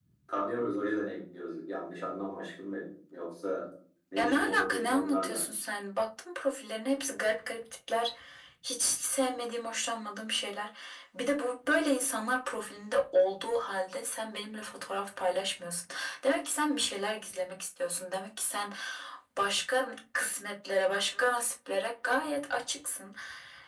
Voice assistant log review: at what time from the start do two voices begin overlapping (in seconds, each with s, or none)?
4.2 s